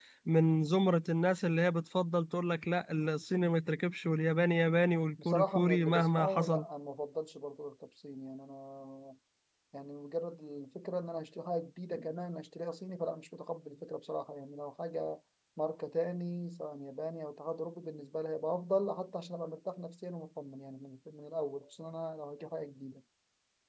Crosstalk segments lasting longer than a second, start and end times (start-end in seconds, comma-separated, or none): 5.2-6.6